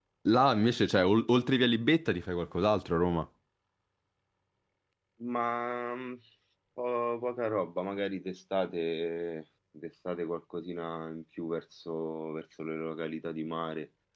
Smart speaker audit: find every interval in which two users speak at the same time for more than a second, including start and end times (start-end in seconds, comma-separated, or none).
none